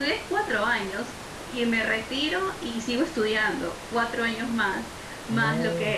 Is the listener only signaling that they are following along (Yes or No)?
Yes